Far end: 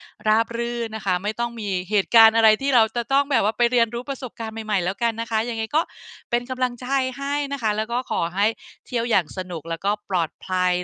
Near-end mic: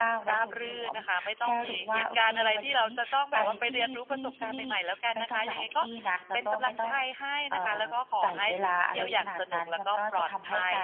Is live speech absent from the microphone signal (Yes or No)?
No